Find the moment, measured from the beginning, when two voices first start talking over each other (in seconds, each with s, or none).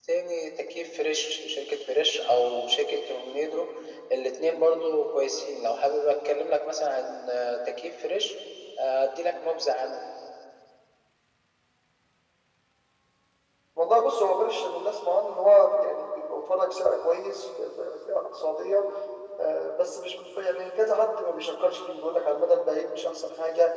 none